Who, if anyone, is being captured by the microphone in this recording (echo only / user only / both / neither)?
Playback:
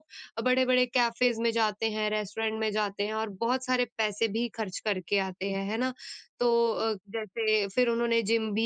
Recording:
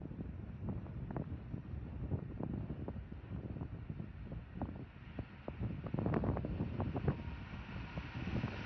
neither